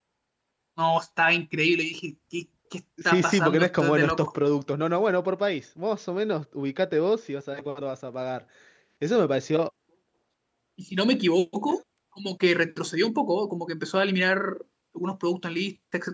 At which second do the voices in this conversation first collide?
3.0 s

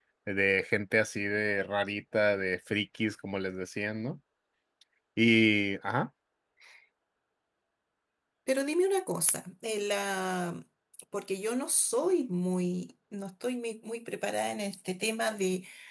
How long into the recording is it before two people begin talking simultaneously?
none

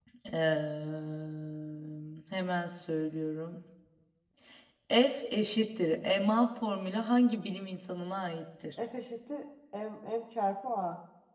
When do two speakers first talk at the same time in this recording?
none

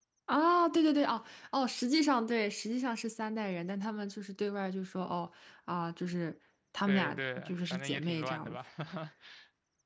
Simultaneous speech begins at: 6.9 s

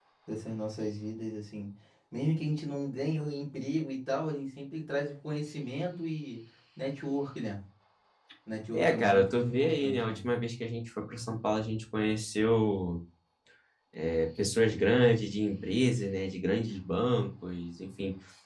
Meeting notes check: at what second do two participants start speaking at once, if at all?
8.7 s

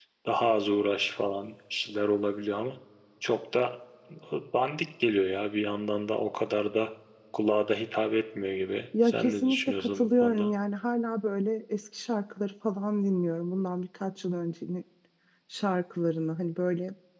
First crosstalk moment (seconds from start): 8.9 s

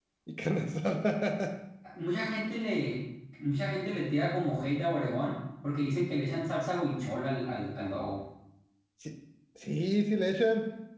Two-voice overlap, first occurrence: none

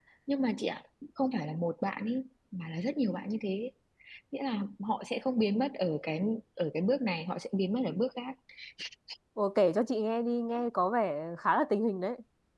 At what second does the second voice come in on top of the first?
none

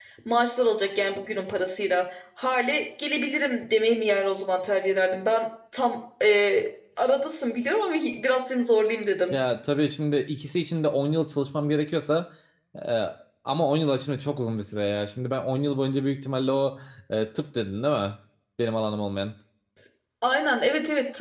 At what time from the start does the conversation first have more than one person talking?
none

